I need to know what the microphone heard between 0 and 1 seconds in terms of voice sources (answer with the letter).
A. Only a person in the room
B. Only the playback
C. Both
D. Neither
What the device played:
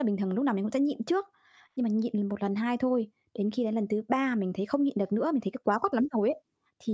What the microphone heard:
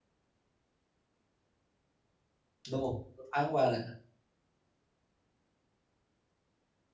D